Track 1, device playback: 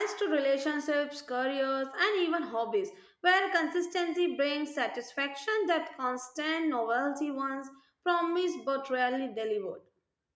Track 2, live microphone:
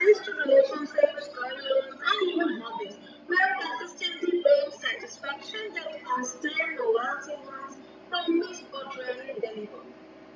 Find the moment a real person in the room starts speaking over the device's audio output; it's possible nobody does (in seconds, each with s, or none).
none